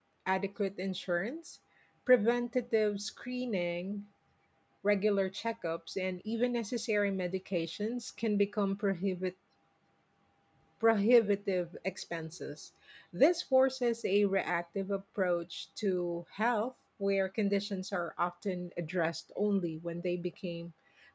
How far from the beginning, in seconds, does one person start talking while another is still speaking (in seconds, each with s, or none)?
none